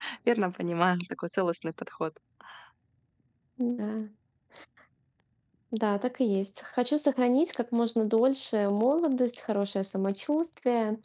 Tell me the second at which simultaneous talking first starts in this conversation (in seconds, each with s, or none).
none